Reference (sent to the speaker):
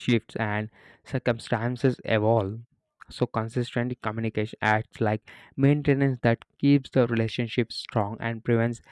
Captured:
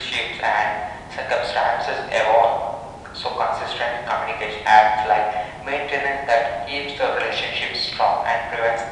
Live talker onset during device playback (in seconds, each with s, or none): none